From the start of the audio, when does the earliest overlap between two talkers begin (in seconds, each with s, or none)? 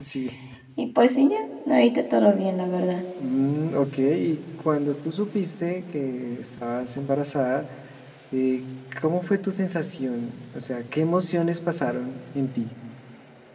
none